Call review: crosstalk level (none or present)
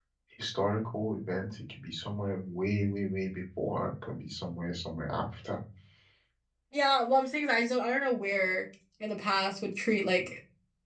none